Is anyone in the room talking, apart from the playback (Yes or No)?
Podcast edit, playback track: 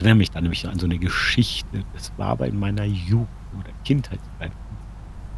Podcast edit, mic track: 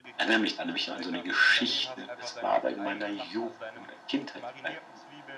Yes